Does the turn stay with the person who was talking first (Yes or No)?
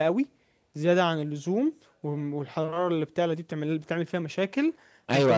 No